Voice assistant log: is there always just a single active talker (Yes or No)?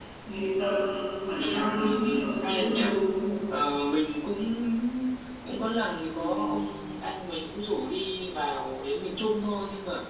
No